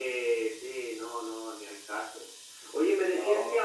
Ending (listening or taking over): listening